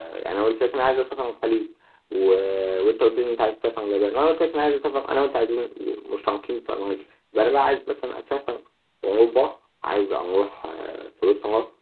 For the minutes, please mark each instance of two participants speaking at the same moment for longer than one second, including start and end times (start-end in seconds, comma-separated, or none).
none